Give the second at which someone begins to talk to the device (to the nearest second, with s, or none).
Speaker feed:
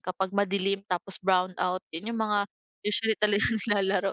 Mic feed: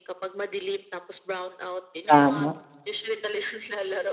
2 s